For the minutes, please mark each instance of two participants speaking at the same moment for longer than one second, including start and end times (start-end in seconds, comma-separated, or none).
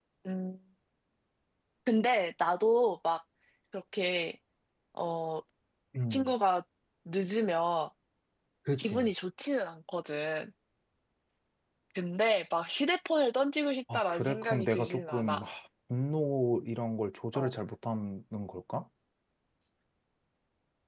13.9-15.4